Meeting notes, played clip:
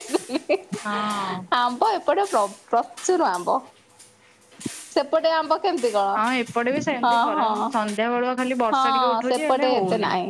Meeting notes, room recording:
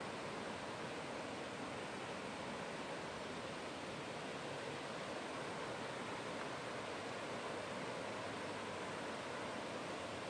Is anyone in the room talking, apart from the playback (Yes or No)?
No